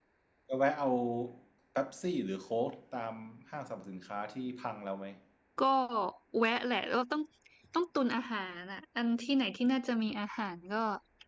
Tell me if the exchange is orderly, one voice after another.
Yes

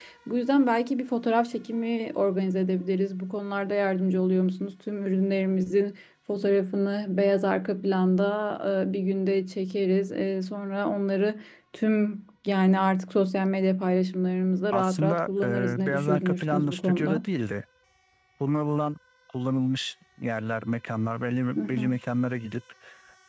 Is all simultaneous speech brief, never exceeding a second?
No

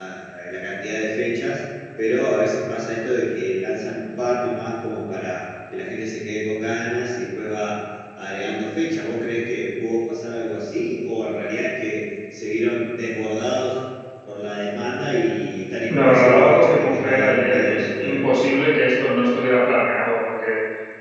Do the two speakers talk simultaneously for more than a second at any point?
Yes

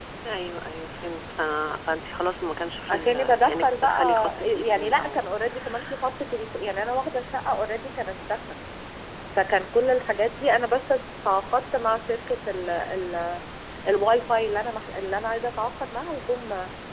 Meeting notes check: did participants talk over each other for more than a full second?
Yes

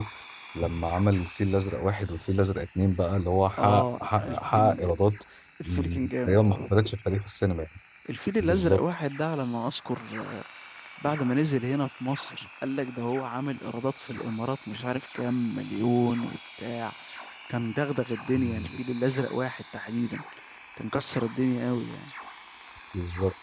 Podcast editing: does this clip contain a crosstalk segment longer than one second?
Yes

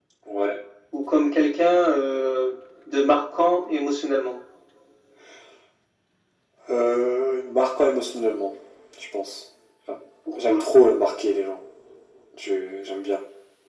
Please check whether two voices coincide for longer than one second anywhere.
No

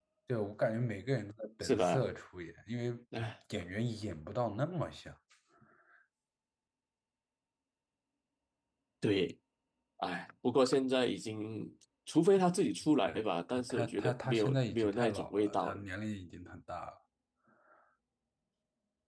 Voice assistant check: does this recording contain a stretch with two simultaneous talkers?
Yes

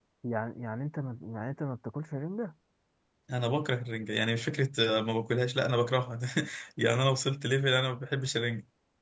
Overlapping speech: No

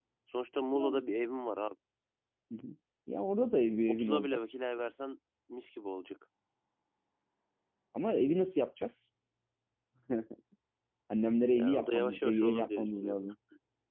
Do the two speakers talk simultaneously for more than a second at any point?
Yes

